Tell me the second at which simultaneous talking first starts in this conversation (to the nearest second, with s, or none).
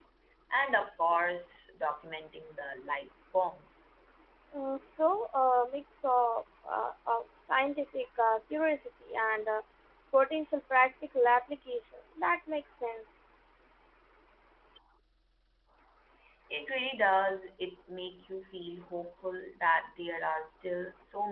none